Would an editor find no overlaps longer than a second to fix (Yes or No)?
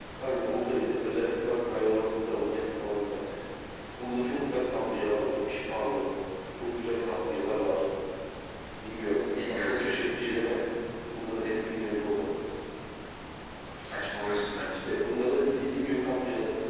Yes